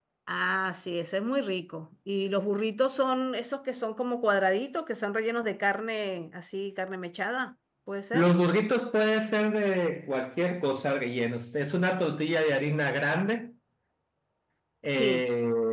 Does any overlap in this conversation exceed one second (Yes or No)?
No